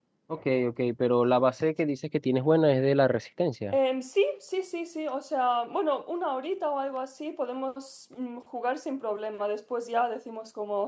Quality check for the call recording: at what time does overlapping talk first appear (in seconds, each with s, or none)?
none